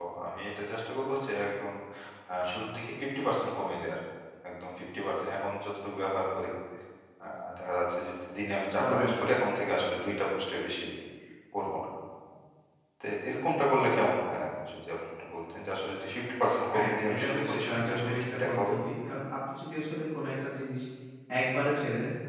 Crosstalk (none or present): present